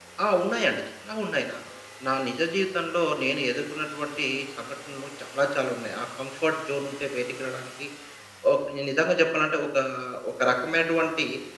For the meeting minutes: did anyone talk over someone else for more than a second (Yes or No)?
No